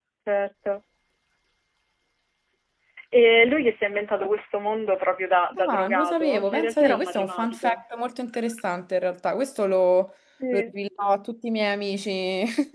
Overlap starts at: 5.6 s

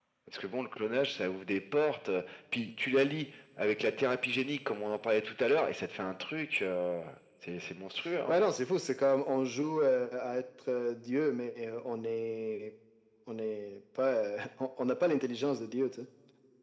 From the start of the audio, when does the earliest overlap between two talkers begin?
none

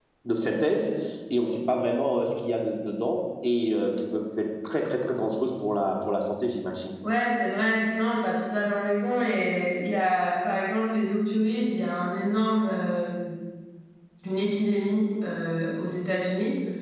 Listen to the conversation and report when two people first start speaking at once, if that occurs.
none

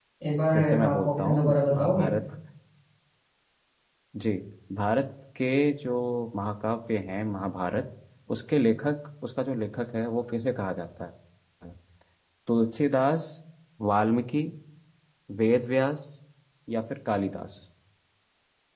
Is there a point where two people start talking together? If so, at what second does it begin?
0.6 s

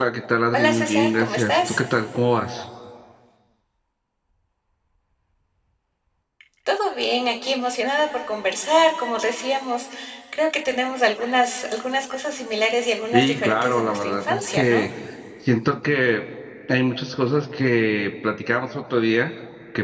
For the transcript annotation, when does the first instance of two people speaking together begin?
0.5 s

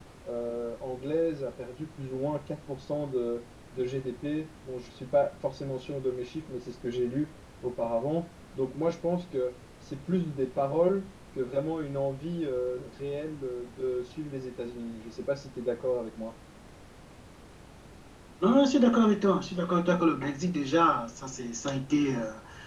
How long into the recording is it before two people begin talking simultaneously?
none

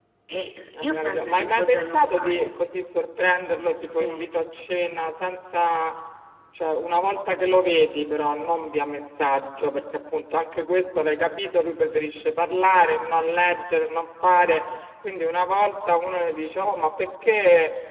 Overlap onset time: 0.8 s

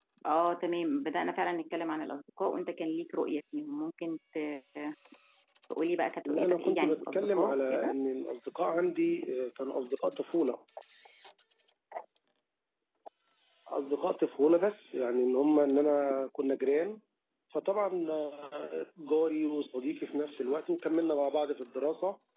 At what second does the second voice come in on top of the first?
6.2 s

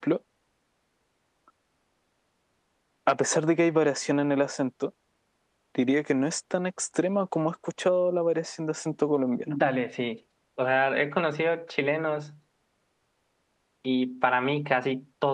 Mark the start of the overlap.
none

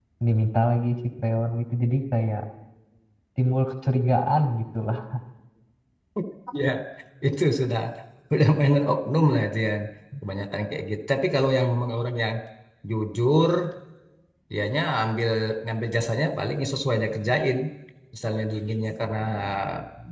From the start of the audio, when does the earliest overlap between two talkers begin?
none

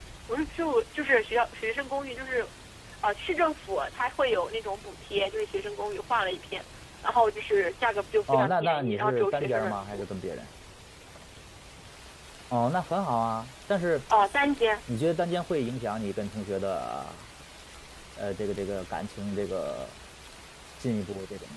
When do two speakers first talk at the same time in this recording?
8.3 s

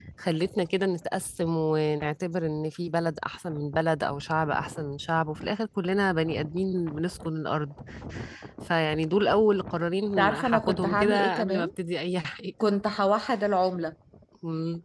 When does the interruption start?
10.2 s

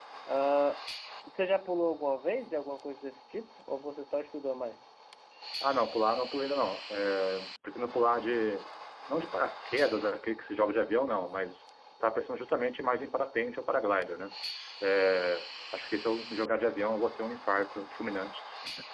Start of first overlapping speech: none

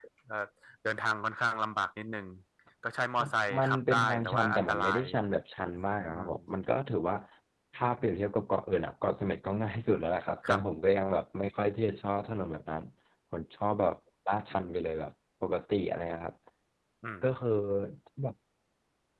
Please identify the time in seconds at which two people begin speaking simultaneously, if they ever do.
3.2 s

